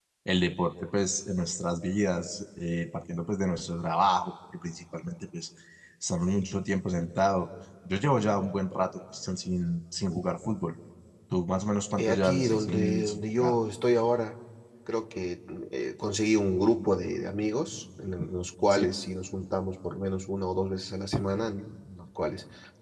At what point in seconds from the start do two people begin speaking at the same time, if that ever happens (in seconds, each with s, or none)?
12.0 s